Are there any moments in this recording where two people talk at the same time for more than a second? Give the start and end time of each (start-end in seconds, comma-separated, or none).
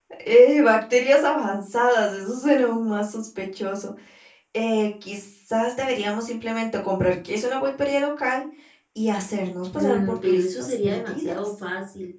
9.8-11.4